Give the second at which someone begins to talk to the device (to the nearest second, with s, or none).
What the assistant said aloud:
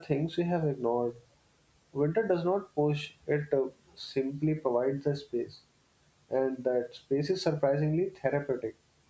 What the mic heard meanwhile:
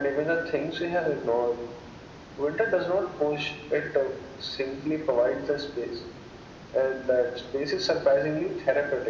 none